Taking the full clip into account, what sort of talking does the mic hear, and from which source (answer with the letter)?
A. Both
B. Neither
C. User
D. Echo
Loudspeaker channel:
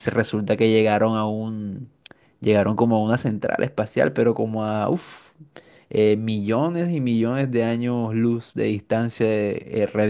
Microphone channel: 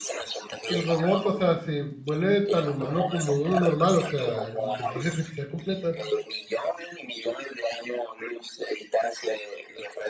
A